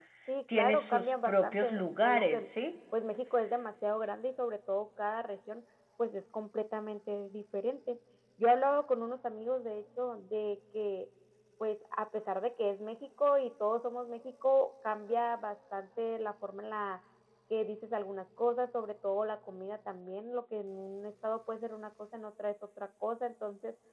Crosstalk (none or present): present